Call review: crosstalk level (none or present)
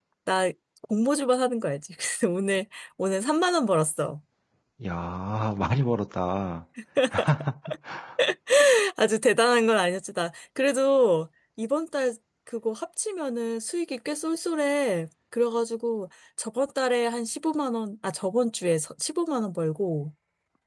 none